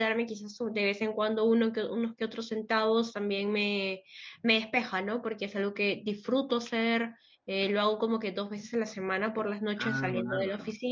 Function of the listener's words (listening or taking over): listening